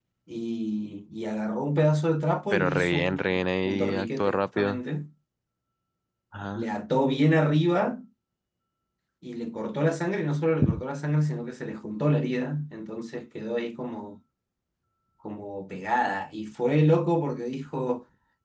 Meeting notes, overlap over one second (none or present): present